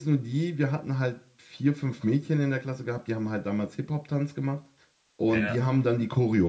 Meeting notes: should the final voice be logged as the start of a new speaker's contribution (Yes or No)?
No